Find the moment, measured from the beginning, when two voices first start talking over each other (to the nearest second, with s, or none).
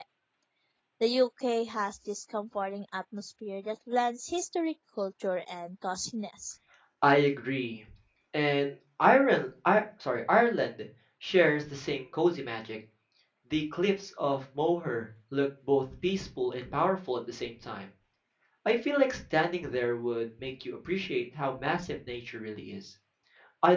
none